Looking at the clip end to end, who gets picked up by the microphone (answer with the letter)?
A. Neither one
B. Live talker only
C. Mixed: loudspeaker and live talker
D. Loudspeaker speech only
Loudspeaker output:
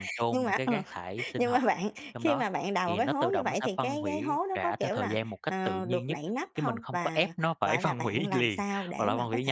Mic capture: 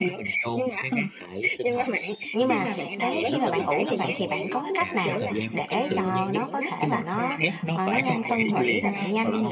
C